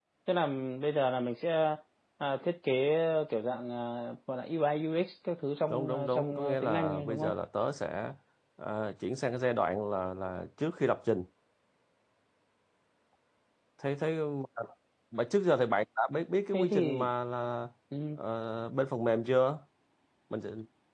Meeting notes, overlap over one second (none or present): present